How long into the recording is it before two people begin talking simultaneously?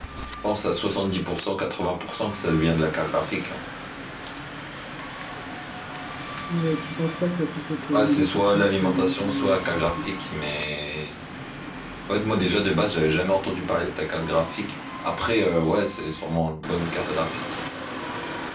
7.9 s

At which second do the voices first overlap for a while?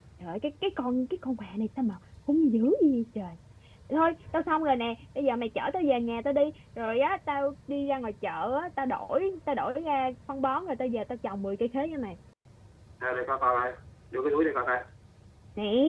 none

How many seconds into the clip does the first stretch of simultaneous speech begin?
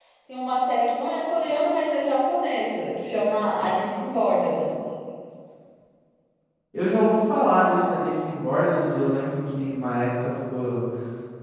none

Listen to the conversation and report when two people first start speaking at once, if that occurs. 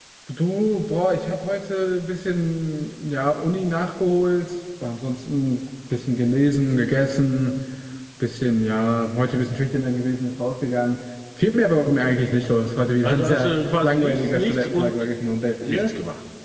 13.0 s

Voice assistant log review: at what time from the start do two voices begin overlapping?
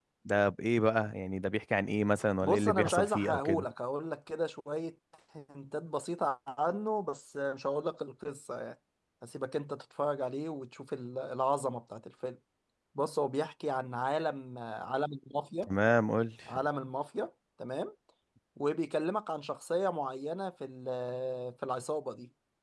2.4 s

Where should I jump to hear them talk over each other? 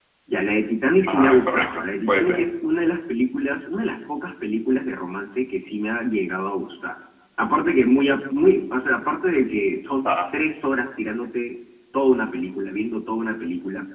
1.1 s

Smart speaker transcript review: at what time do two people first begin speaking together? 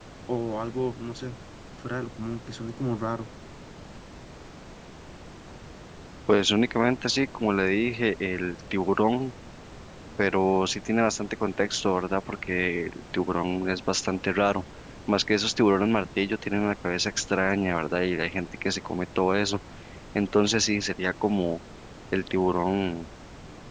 none

